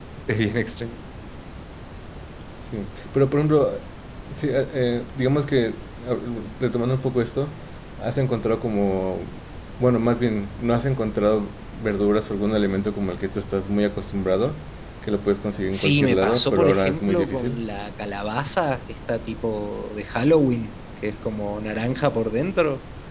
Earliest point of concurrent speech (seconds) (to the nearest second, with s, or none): 16 s